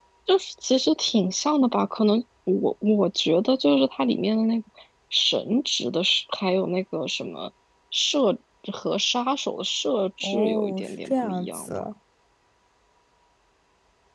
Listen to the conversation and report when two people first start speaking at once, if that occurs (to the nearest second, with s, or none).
10 s